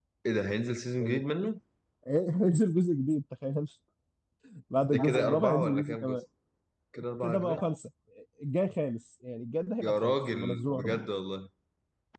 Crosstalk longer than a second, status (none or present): present